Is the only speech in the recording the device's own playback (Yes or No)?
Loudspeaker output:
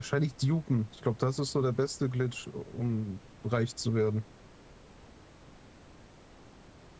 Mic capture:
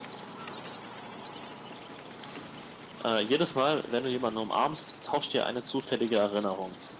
No